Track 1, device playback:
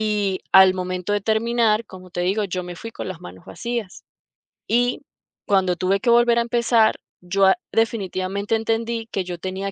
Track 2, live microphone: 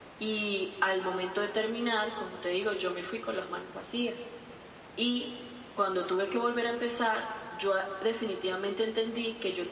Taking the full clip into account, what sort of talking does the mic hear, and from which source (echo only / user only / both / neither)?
echo only